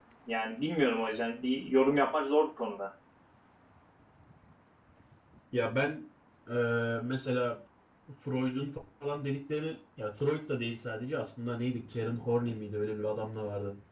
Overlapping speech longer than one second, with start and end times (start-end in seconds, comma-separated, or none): none